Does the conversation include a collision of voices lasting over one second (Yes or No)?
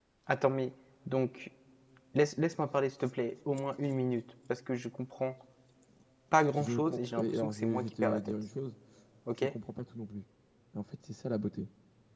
Yes